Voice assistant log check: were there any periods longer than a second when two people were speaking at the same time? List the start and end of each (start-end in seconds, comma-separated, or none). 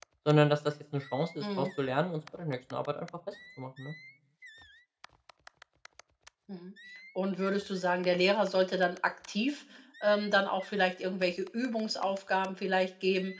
none